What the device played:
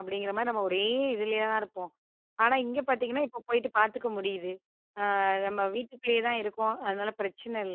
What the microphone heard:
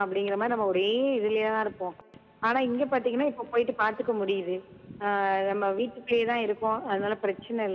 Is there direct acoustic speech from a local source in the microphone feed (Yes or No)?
No